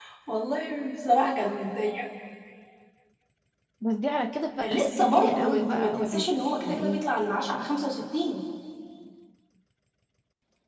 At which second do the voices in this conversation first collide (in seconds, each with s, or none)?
4.6 s